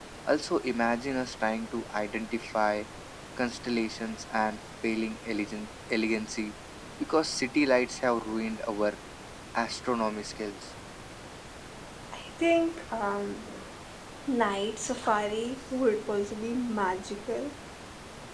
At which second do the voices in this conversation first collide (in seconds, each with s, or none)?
none